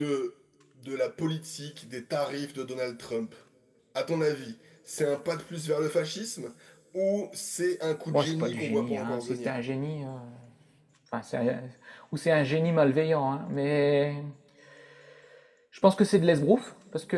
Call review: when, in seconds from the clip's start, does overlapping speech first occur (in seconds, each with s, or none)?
8.1 s